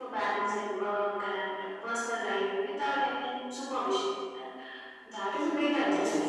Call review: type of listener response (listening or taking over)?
taking over